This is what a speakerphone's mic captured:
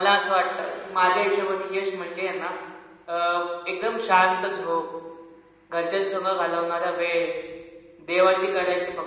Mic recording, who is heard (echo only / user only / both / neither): echo only